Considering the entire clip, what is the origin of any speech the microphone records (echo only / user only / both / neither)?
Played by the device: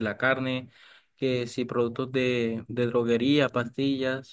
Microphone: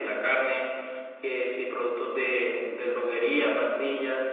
echo only